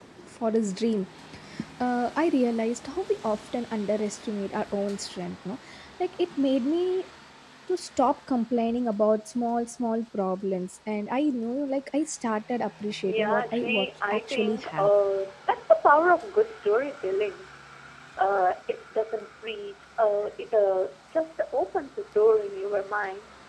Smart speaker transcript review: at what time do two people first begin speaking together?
13.0 s

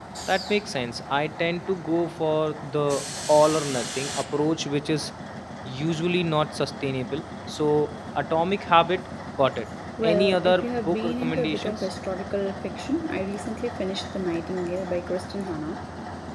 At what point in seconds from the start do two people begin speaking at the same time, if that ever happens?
10.0 s

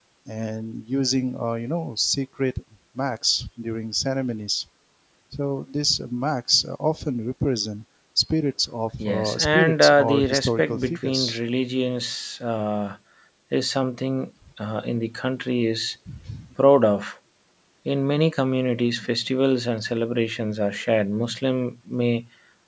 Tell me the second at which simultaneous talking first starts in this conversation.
9.0 s

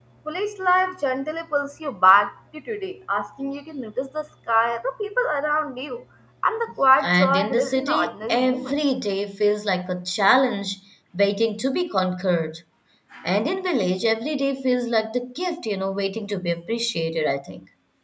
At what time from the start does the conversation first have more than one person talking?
7.0 s

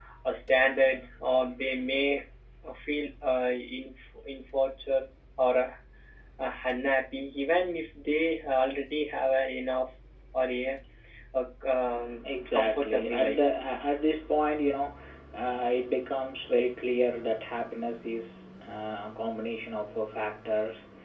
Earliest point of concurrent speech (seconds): 12.2 s

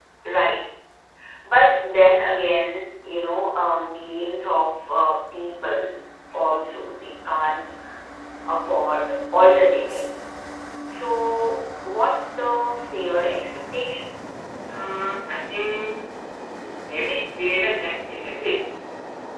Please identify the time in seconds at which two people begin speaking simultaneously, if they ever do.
none

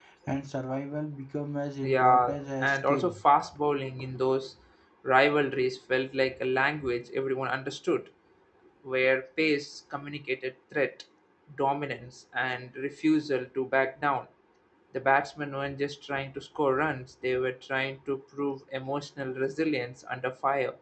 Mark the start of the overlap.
1.8 s

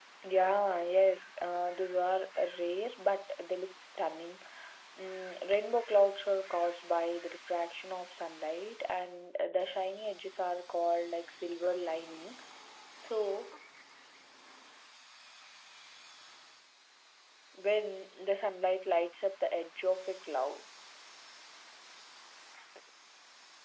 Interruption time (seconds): none

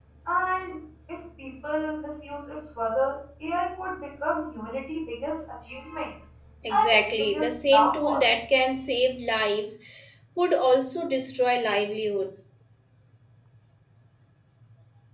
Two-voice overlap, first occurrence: 6.7 s

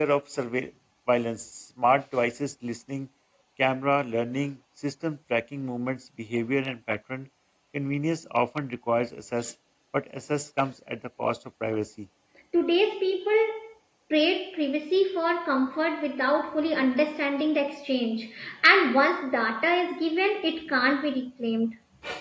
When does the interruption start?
none

